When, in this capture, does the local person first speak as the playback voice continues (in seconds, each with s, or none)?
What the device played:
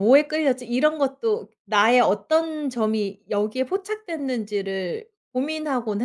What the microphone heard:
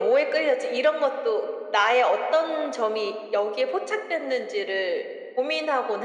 none